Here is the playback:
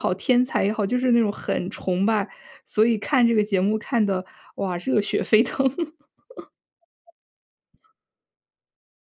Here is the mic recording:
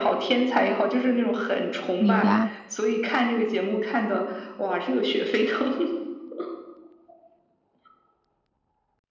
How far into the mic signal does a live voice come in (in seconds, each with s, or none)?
2.0 s